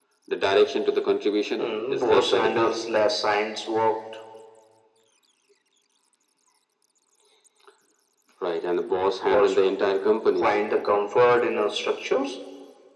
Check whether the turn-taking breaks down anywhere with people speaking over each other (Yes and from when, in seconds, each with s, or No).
Yes, from 1.6 s